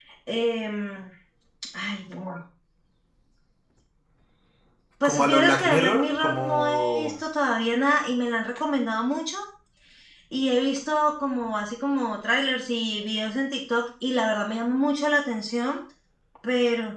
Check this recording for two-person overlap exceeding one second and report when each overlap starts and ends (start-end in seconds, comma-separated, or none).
5.0-7.1